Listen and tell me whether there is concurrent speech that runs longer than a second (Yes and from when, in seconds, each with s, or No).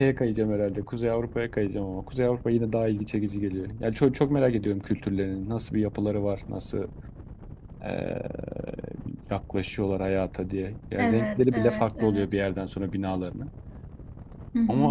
Yes, from 11.0 s